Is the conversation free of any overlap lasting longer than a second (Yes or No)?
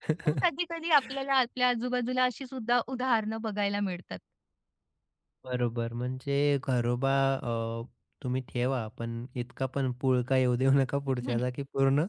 Yes